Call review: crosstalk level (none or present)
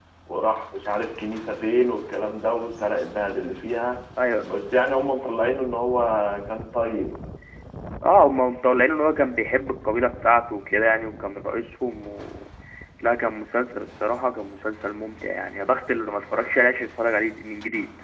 none